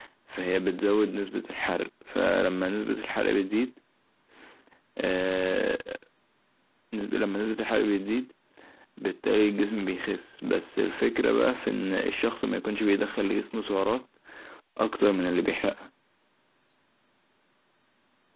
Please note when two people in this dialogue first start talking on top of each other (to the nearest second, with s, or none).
none